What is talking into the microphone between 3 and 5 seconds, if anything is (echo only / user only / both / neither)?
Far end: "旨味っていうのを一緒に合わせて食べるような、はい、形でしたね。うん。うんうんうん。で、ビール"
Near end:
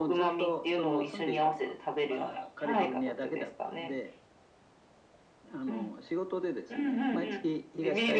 both